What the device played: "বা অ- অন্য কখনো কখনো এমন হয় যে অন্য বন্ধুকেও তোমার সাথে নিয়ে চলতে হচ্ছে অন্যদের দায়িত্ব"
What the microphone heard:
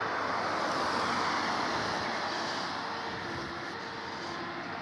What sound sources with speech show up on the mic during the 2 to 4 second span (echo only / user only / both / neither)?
neither